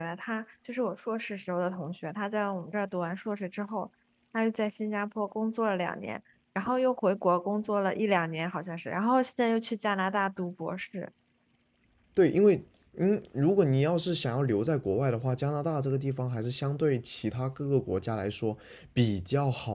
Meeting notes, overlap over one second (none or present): none